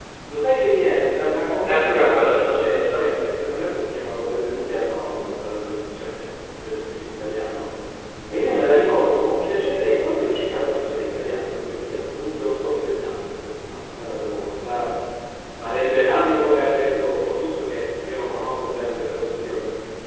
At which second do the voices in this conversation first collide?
1.6 s

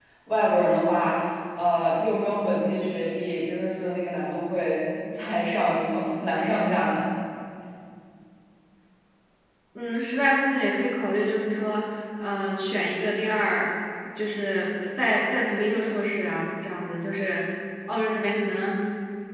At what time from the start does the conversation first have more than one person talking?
none

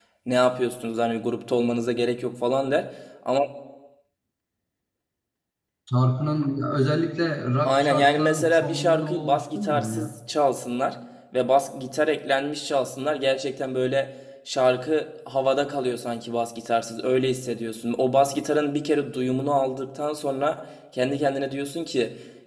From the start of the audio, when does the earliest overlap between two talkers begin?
7.6 s

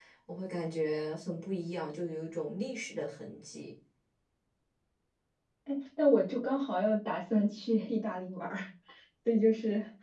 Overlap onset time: none

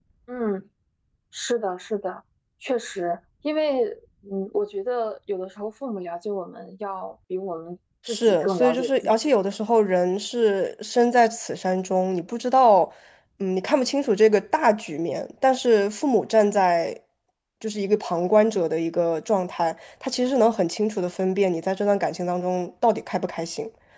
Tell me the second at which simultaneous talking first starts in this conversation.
8.1 s

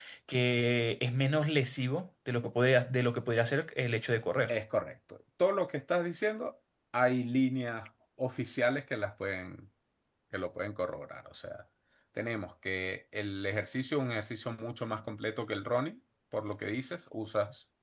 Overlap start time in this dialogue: none

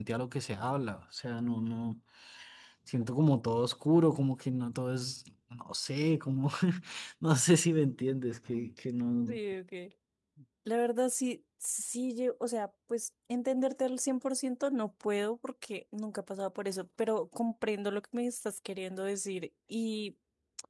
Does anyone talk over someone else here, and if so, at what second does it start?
none

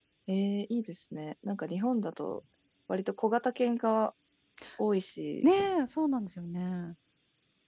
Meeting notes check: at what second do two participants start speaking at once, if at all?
none

